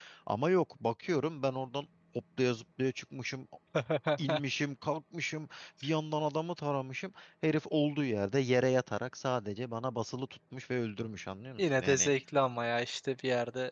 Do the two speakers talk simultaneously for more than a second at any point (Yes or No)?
No